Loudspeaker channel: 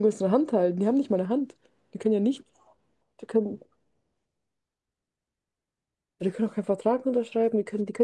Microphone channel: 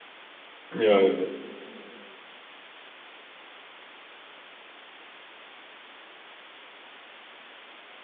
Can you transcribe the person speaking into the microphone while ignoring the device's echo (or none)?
Ja, ja.